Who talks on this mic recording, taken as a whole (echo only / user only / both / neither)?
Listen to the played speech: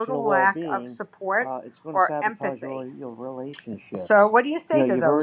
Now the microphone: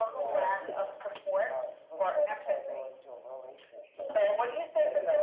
echo only